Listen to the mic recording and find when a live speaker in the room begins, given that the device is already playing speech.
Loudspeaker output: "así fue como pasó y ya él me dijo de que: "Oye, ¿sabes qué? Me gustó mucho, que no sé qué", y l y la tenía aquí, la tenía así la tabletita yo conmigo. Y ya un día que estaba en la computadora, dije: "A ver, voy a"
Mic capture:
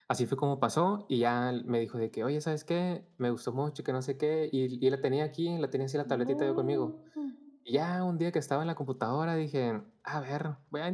6.0 s

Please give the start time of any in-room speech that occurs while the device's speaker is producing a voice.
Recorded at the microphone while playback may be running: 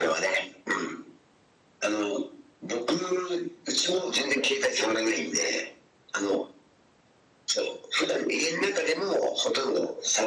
none

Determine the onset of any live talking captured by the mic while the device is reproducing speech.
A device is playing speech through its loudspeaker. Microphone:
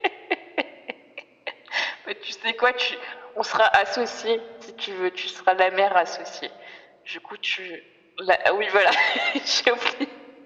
none

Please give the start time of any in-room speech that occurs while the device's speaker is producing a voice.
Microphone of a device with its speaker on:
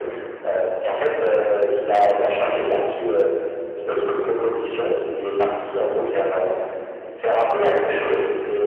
none

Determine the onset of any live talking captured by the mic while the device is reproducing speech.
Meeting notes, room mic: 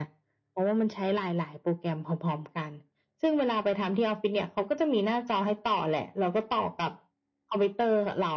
none

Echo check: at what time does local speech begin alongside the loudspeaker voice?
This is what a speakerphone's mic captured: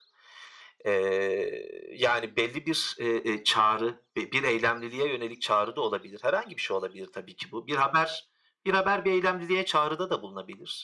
none

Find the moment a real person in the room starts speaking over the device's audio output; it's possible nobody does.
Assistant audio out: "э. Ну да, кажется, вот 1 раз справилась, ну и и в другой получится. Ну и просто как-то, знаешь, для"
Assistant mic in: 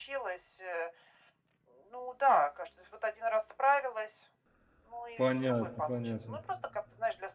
5.2 s

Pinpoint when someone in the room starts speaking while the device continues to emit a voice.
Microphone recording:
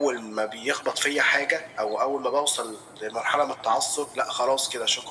none

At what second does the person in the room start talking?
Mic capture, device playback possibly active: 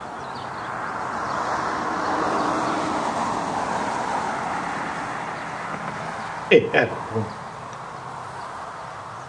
6.5 s

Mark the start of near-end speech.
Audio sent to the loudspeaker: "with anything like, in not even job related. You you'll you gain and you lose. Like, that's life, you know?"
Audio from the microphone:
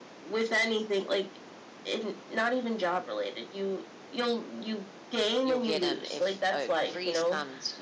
5.4 s

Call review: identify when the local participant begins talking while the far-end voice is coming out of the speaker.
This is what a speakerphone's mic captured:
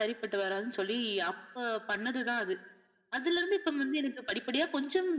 none

